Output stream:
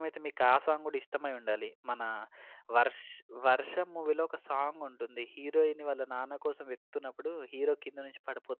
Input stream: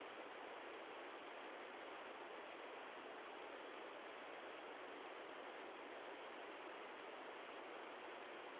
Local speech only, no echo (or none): none